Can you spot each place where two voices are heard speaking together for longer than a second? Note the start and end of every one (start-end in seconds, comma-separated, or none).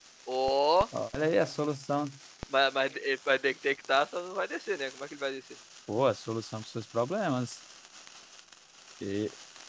none